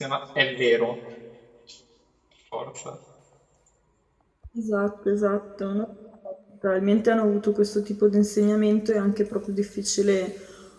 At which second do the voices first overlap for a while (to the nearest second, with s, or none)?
none